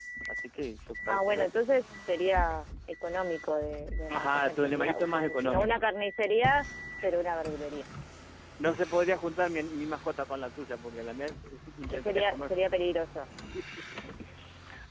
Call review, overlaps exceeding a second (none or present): present